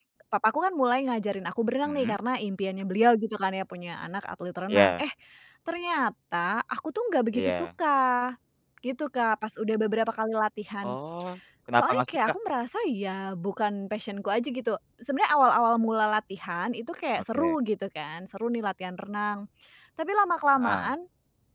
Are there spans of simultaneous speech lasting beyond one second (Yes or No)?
No